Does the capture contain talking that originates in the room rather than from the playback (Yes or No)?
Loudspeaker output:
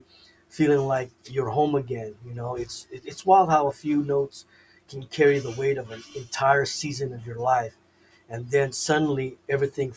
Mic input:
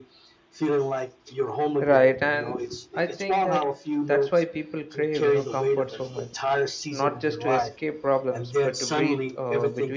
Yes